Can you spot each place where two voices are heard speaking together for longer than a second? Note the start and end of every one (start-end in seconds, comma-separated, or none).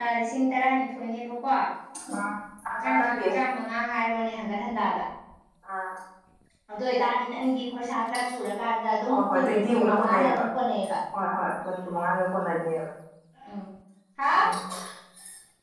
9.1-10.4